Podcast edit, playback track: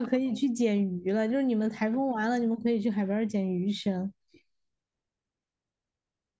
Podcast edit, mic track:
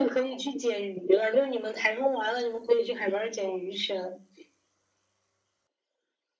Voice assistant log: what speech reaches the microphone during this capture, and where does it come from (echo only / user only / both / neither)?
echo only